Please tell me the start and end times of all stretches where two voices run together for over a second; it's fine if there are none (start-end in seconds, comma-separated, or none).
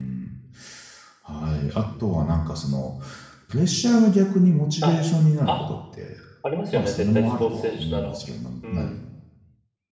6.7-8.2